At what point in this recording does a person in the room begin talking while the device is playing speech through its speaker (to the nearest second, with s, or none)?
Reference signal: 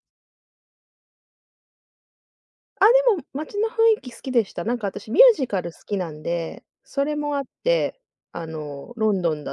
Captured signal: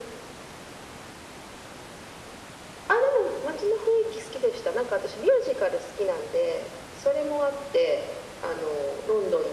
none